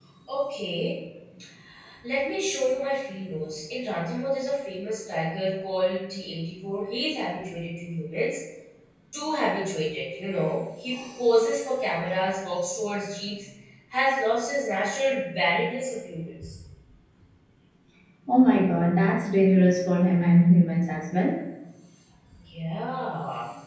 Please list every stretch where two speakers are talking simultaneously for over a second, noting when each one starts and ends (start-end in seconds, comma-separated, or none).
none